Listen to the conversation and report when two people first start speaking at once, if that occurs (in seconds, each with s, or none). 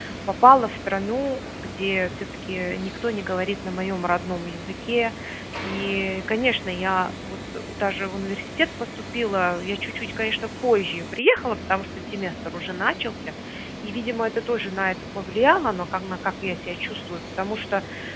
none